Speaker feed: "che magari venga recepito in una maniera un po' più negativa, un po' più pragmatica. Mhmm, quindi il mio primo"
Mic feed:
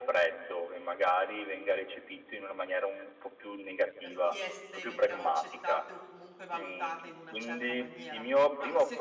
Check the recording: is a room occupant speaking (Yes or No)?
Yes